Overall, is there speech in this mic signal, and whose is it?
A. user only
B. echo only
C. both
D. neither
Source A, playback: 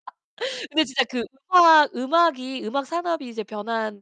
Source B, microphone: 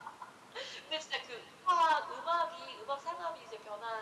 B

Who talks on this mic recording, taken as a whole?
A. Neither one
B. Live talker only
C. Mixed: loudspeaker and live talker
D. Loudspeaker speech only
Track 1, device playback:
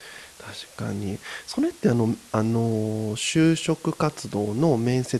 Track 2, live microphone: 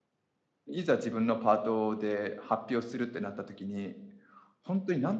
B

